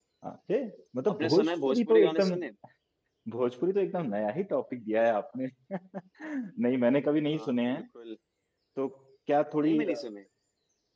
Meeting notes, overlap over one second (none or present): present